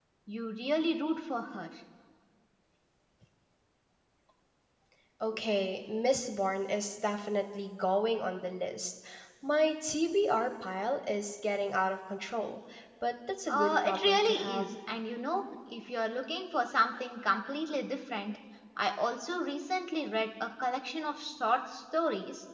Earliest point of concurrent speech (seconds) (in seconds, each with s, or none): 13.5 s